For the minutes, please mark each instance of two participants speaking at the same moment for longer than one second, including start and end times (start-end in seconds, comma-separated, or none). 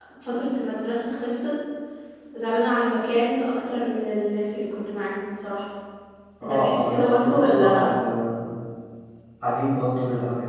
6.4-7.9